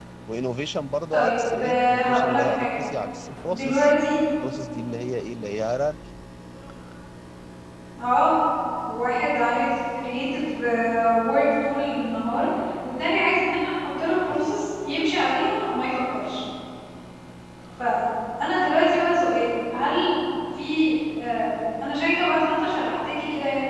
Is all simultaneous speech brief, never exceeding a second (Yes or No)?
No